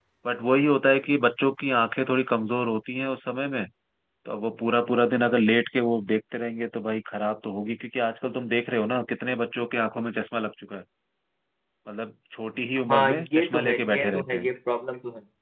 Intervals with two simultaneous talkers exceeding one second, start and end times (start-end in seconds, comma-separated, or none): 12.9-14.5